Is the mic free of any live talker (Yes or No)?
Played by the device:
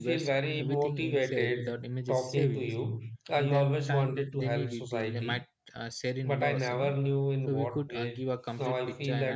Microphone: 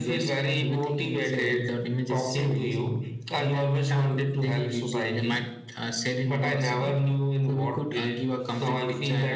Yes